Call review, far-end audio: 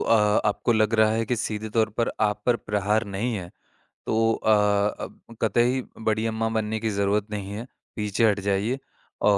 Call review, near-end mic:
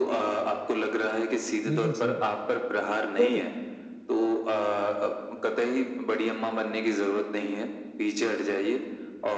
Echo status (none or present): present